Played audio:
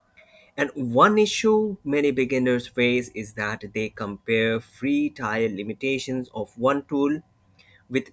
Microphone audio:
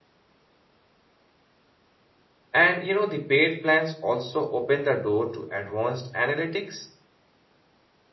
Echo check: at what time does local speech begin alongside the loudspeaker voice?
3 s

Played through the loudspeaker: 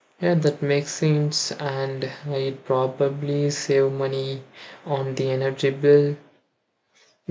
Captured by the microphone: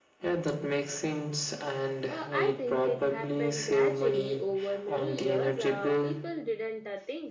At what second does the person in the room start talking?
2 s

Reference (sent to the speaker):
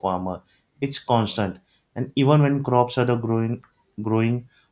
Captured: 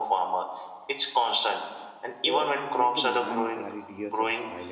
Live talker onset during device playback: 2 s

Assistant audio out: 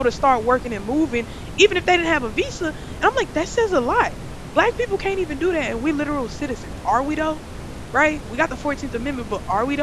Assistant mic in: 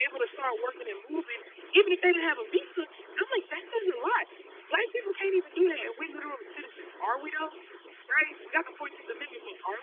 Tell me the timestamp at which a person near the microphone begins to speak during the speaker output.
none

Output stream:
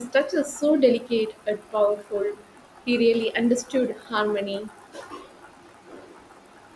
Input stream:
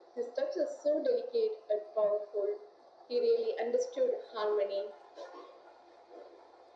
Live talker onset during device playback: none

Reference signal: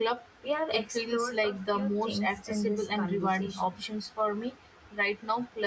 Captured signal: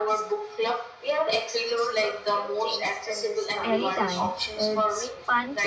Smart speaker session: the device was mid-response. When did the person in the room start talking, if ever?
4 s

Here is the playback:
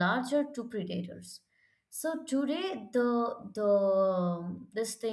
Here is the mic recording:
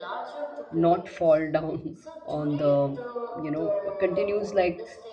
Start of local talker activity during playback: 1 s

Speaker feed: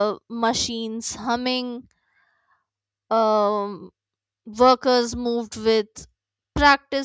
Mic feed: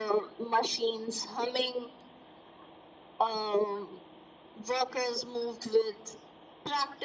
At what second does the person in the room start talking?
none

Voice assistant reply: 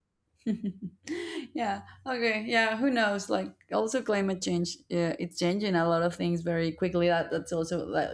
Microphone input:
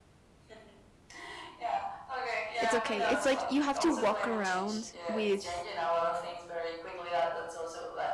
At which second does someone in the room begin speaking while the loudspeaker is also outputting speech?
3 s

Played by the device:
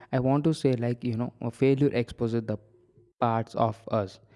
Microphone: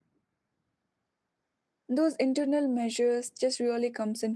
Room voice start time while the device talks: 2 s

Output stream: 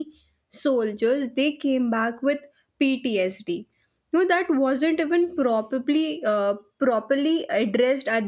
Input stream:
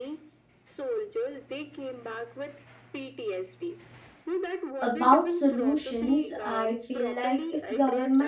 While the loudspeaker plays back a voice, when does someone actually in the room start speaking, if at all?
5 s

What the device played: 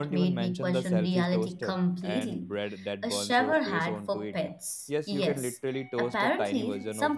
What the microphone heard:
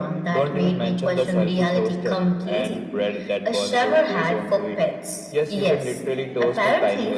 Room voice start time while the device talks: none

